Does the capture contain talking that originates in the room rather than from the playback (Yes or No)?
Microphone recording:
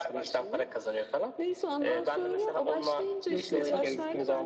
Yes